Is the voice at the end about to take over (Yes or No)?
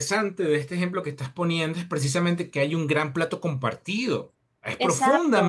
Yes